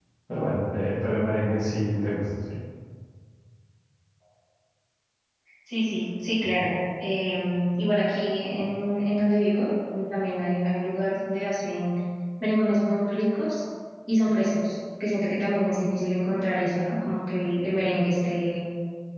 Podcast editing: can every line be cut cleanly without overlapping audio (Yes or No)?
Yes